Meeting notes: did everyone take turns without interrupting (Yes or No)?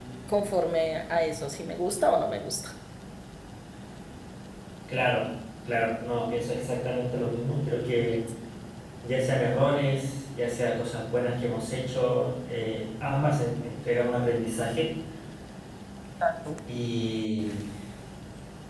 Yes